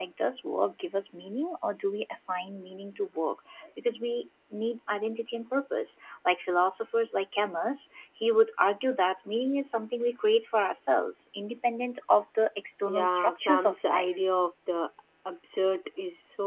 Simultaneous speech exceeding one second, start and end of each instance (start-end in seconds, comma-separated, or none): 12.8-14.1